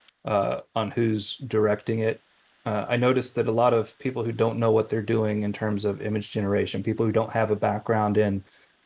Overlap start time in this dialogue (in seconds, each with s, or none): none